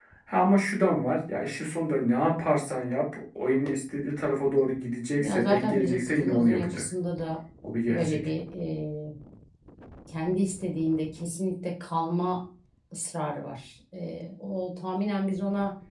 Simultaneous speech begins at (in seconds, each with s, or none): 5.2 s